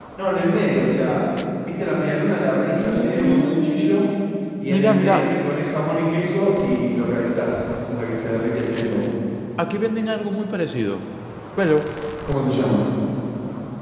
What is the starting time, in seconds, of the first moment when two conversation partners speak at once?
3 s

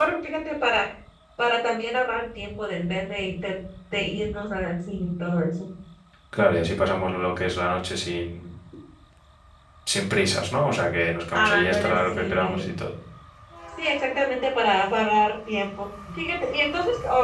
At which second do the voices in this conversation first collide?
11 s

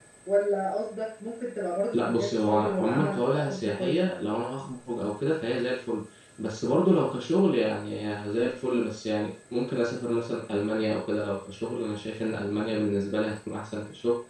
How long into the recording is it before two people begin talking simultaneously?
2 s

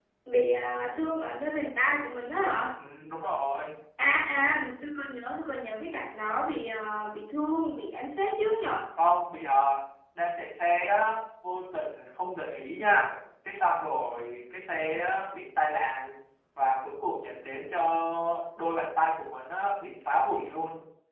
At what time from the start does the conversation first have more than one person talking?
none

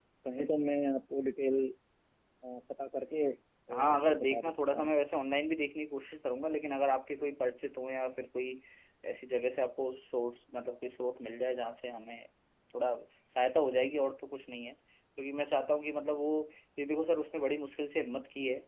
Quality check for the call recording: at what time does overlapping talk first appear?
4 s

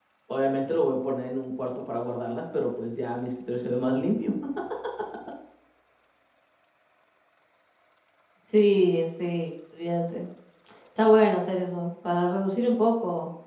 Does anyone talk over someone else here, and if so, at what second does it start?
none

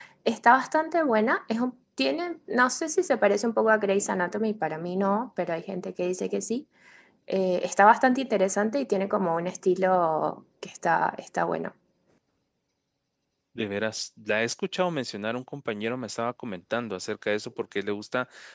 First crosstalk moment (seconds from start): none

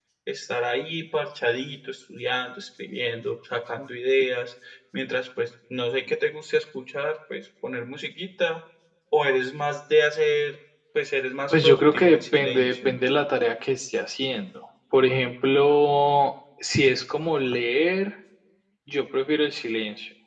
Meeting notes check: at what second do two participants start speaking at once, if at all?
12 s

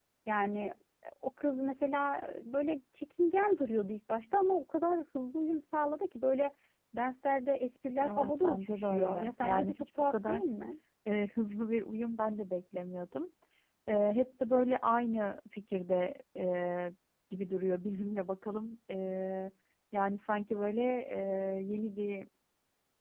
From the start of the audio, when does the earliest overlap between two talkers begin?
8 s

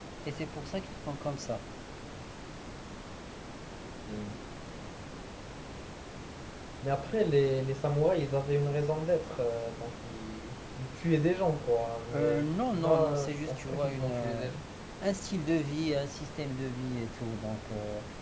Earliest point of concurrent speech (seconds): 12 s

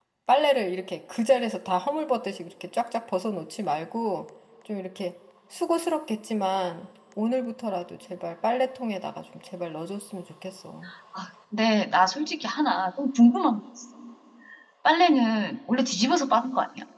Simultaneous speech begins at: none

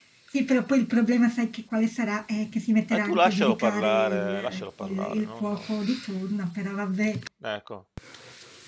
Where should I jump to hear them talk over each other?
3 s

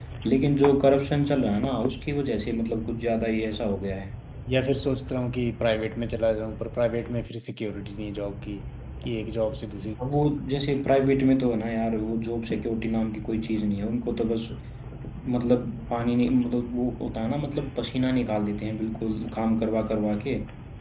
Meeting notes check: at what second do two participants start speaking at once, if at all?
none

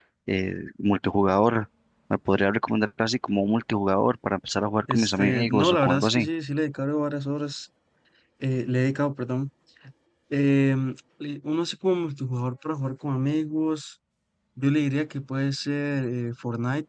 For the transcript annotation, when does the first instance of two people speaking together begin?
5 s

